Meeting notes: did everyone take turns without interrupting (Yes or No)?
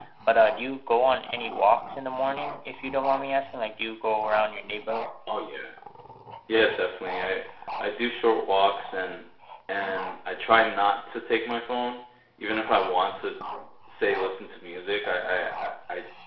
Yes